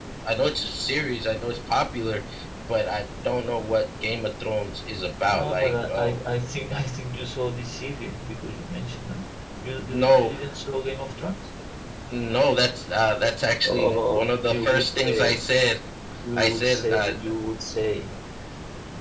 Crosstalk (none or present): present